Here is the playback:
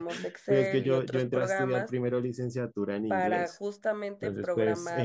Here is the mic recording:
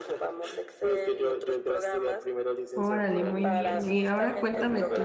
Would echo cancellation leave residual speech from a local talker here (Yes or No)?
Yes